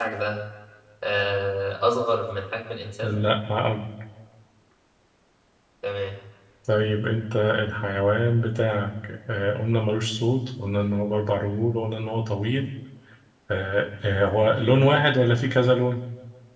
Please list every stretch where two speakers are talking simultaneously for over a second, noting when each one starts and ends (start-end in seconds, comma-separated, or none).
none